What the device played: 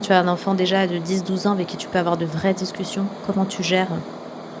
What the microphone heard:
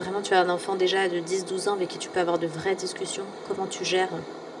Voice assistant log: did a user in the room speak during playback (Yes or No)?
No